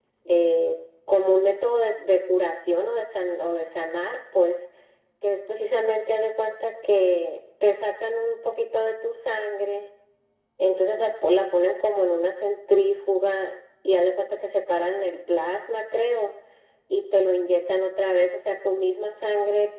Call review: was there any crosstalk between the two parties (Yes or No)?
No